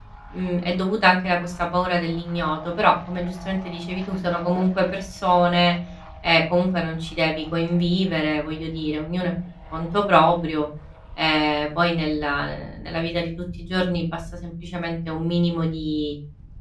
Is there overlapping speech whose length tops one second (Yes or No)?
No